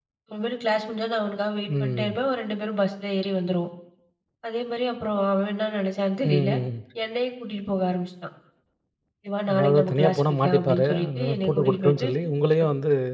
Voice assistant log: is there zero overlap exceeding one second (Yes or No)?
No